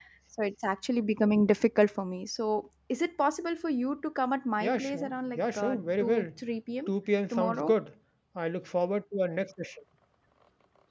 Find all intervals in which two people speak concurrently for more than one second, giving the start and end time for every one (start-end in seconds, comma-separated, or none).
4.6-6.3